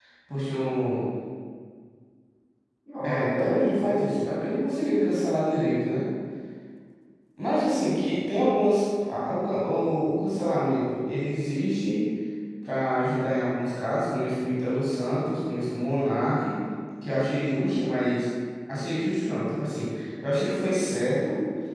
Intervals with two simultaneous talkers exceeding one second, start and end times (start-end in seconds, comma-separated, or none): 3.0-4.3